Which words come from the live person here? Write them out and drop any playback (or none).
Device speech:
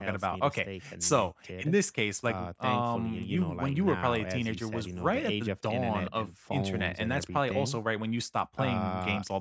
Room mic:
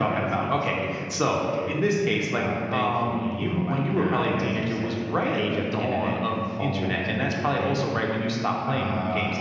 none